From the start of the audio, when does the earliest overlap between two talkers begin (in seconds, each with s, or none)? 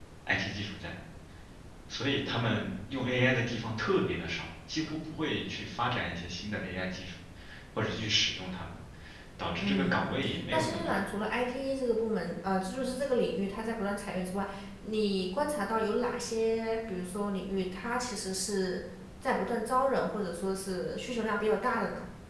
9.6 s